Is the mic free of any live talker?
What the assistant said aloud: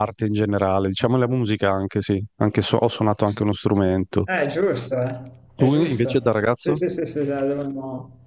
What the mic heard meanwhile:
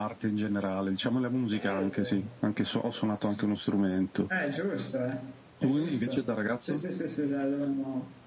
No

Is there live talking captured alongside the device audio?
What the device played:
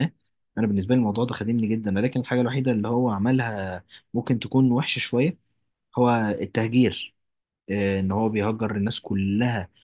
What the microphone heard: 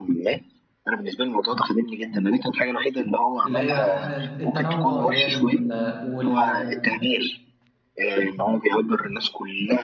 Yes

